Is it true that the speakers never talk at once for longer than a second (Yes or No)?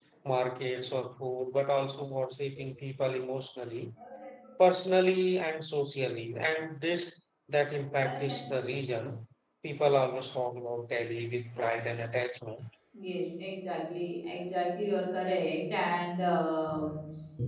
Yes